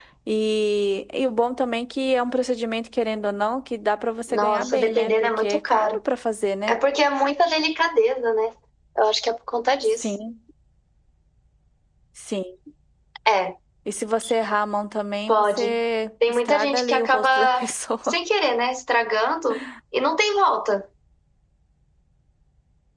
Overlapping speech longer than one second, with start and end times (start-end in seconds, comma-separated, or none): 4.3-6.0, 16.3-17.6